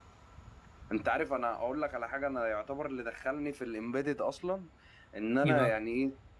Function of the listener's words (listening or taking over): listening